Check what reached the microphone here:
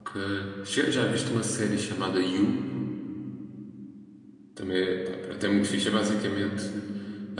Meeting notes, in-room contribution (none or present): present